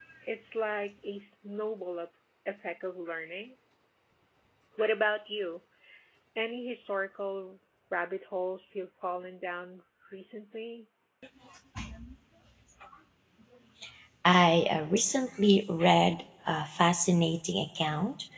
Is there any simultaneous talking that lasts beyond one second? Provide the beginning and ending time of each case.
none

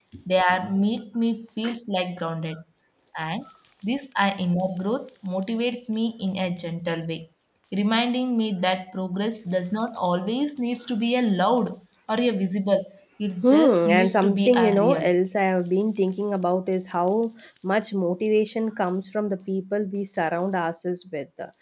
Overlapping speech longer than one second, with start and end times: 13.4-15.1

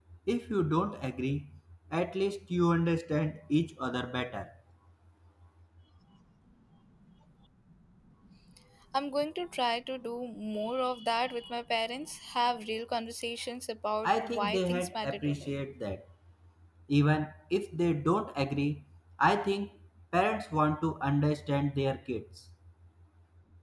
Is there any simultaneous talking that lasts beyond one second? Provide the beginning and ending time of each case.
14.0-15.5

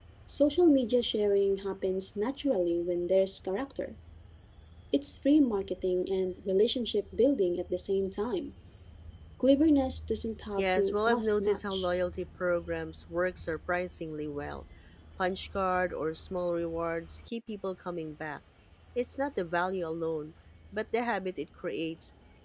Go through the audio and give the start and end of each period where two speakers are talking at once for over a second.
10.6-11.9

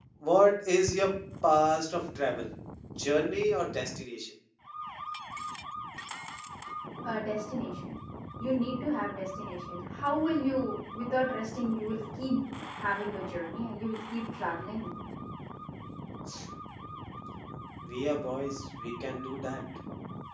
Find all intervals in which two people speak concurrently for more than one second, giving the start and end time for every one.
none

